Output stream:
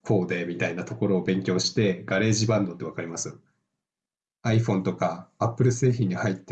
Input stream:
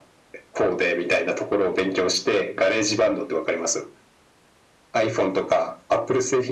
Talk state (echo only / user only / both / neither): echo only